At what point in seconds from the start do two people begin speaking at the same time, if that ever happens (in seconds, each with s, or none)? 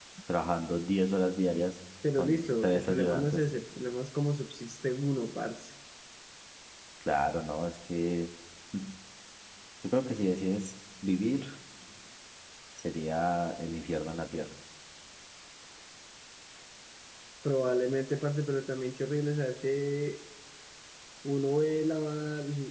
2.0 s